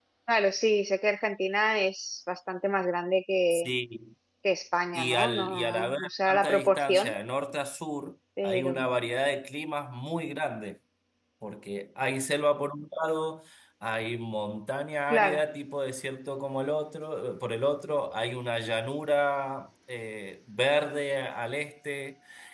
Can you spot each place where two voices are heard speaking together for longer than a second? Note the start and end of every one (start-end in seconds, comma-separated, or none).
4.9-7.1